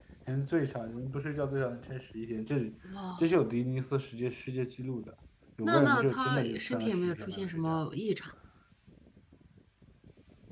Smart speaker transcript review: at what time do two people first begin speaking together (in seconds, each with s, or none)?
5.6 s